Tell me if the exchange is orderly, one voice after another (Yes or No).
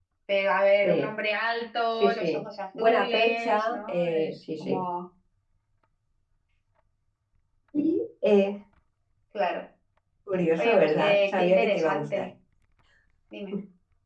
No